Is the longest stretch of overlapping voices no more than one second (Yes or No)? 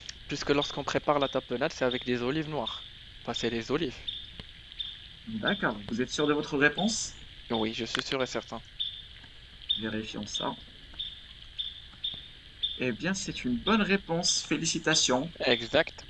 Yes